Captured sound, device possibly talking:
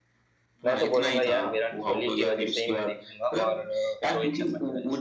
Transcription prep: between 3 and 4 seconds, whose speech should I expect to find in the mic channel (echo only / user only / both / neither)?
both